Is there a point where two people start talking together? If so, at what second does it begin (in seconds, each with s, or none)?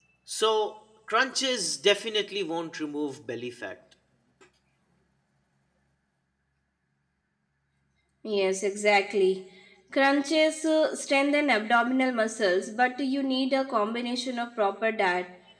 none